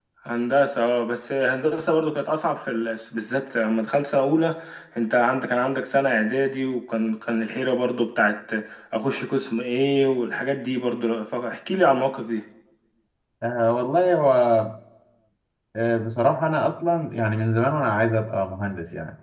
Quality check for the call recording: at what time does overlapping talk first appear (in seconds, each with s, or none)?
none